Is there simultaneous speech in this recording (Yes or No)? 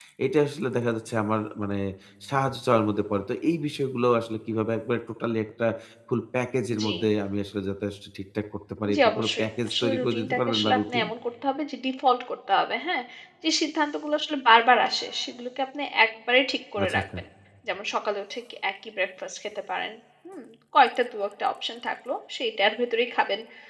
Yes